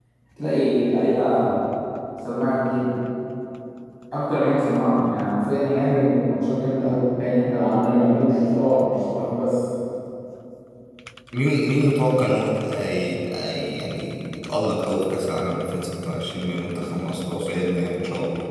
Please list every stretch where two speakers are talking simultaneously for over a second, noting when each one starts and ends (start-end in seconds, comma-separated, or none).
none